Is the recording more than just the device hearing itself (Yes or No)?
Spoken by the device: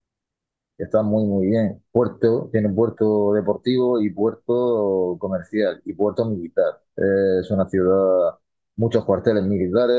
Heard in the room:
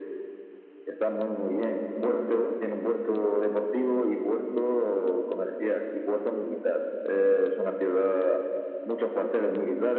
No